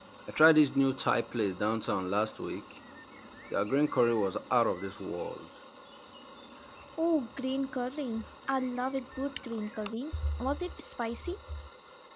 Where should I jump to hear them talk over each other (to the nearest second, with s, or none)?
none